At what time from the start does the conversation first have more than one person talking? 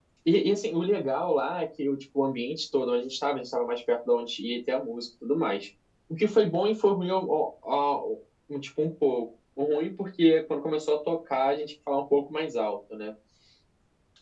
none

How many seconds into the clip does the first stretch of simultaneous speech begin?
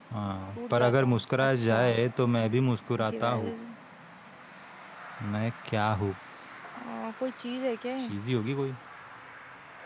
0.6 s

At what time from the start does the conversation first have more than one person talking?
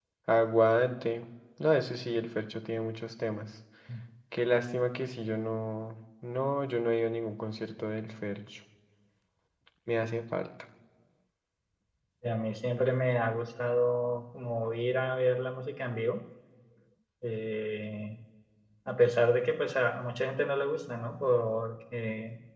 none

